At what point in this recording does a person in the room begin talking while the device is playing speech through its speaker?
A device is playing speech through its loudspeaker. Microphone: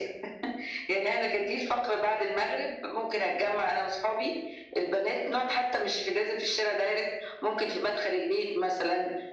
none

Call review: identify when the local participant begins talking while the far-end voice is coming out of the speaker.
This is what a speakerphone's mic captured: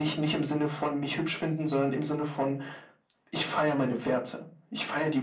none

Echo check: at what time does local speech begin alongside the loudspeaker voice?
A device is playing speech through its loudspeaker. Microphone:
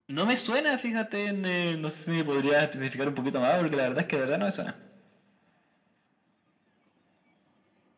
none

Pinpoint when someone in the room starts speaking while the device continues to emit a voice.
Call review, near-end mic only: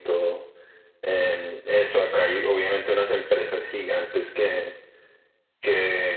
none

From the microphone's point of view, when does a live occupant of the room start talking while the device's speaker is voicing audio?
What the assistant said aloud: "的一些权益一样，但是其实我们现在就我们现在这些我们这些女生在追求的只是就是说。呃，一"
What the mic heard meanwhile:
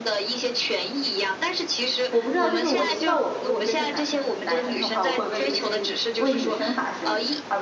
2.1 s

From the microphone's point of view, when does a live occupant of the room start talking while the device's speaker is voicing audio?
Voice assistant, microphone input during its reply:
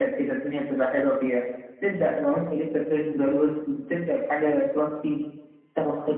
none

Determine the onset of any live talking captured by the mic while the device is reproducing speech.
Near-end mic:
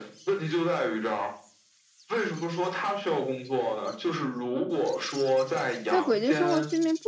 5.9 s

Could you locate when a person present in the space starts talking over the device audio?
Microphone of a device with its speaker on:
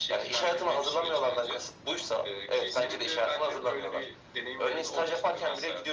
none

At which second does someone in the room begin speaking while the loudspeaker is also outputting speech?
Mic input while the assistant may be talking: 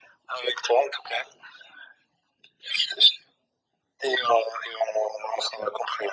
none

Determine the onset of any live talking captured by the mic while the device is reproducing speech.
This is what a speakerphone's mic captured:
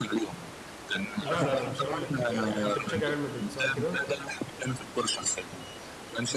1.2 s

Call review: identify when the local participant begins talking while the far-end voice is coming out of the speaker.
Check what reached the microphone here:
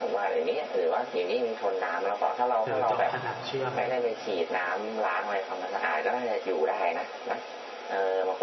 2.6 s

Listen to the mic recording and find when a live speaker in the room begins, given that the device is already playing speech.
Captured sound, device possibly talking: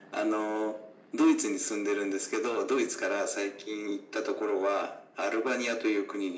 none

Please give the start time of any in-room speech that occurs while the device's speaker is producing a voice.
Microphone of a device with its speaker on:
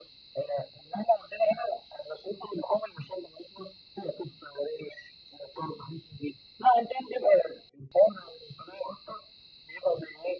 none

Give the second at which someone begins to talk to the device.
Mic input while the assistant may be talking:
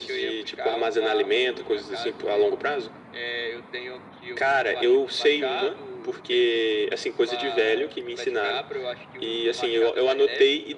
none

